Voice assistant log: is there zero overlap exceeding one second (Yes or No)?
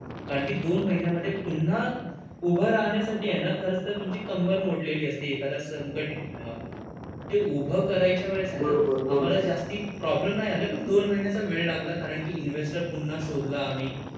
Yes